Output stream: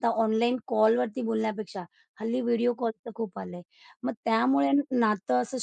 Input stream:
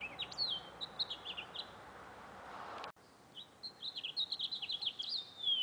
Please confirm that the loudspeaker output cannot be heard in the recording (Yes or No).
Yes